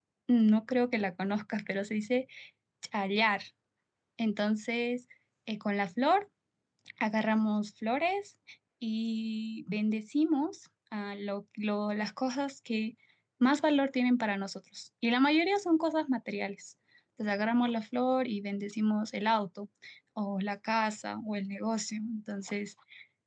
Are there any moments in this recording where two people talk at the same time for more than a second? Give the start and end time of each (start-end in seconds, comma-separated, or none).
none